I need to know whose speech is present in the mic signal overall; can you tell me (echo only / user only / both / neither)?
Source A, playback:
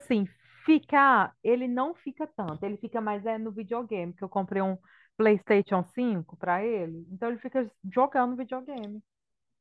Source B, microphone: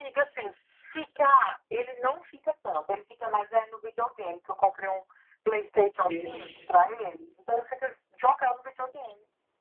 both